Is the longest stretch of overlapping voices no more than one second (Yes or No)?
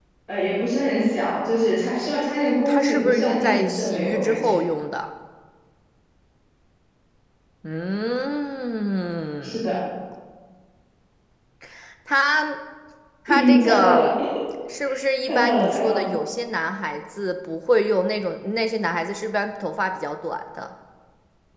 No